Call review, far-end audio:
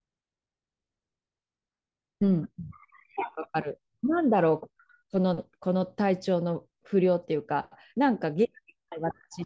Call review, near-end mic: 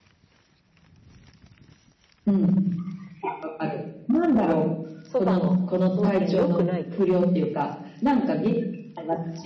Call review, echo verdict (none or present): present